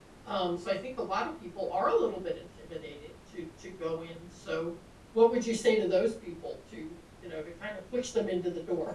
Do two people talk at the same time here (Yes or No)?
No